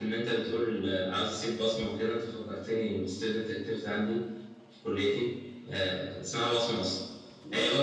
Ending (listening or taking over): listening